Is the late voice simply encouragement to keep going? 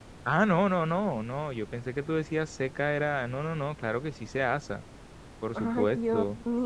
No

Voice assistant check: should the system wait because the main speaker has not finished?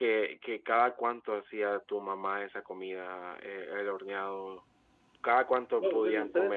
No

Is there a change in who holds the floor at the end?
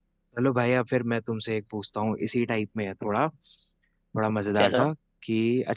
No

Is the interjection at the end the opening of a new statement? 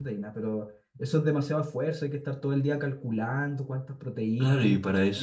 Yes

